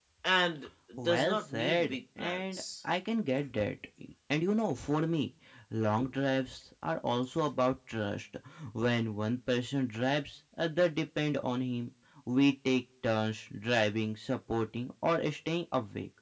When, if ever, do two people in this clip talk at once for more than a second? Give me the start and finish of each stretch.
1.0-2.6

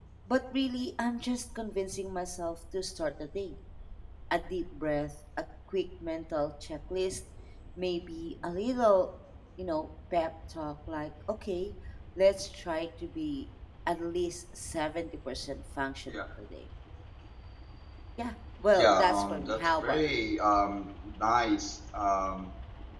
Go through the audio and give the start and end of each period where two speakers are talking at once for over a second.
18.8-20.2

